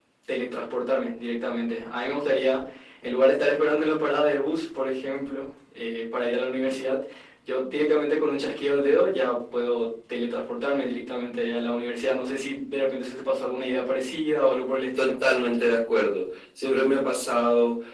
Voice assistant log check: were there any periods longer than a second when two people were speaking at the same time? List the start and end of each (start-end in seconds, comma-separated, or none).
none